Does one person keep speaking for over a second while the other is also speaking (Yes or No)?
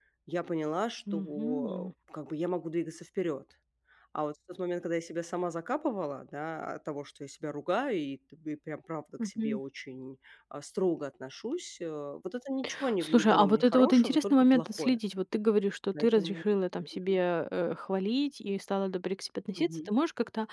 Yes